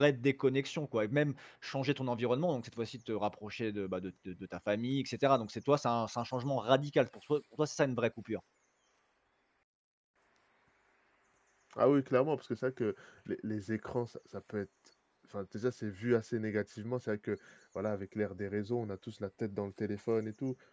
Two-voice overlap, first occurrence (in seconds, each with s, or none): none